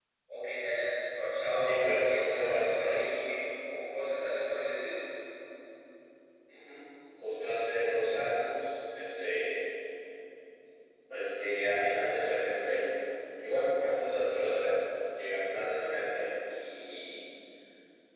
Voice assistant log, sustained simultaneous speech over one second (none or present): present